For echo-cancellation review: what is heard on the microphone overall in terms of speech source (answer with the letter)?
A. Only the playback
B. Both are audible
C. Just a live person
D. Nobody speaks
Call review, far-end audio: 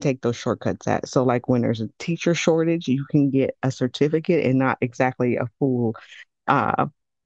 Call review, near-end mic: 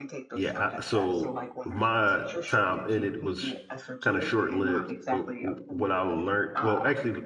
B